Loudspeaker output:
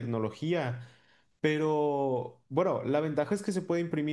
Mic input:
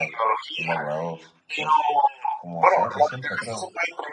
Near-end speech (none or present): present